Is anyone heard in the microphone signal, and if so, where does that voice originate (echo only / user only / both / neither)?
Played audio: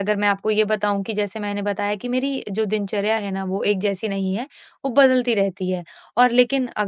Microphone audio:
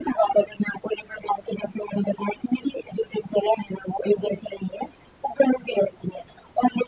echo only